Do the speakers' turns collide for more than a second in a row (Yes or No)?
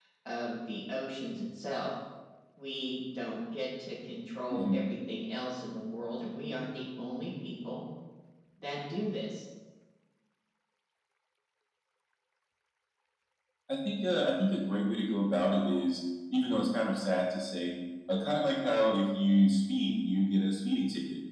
No